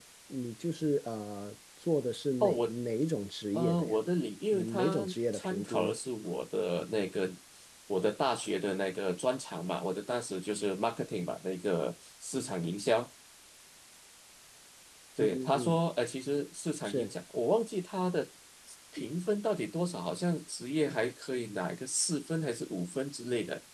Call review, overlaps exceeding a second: present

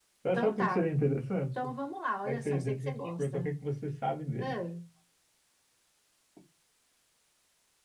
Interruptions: present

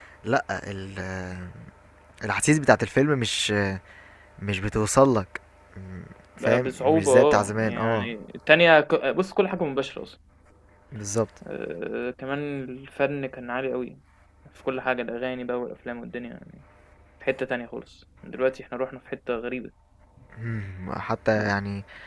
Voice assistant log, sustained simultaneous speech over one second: present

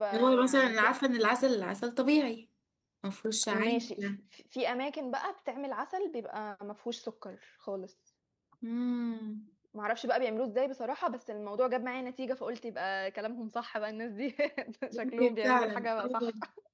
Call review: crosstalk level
present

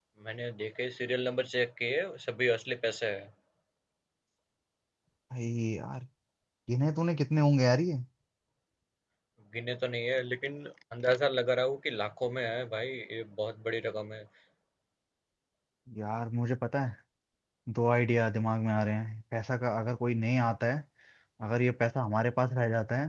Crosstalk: none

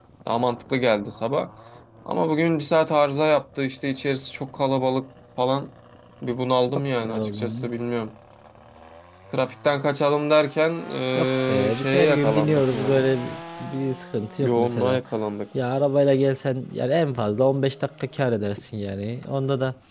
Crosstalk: present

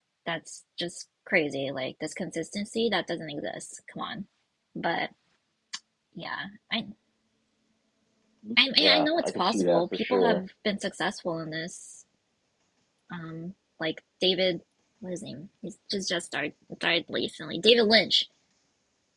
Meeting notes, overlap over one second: present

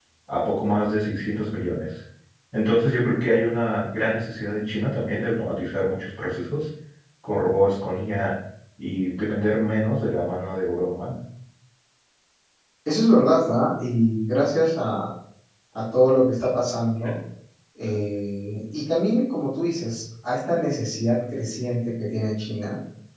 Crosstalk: none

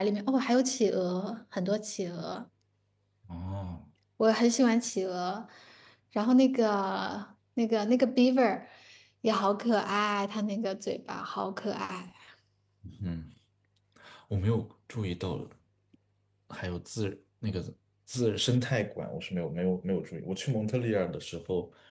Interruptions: none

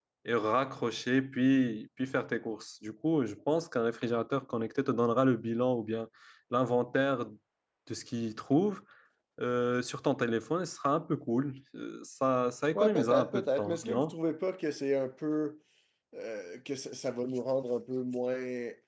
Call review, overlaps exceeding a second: present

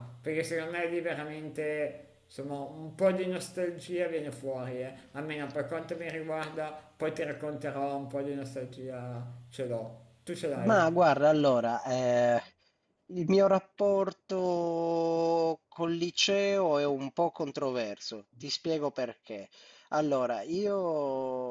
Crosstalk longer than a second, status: none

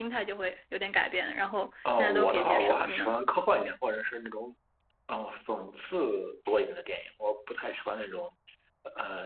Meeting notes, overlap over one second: present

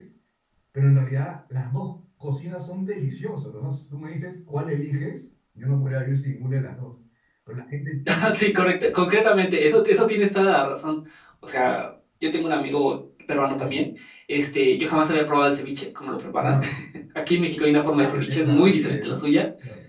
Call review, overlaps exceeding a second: present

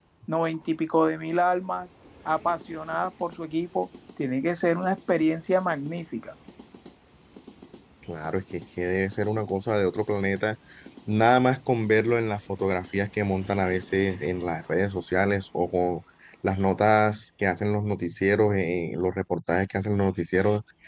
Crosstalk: none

